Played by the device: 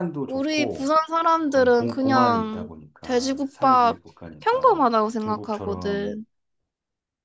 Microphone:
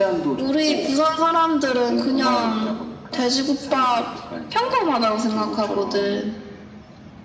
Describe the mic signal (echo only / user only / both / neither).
echo only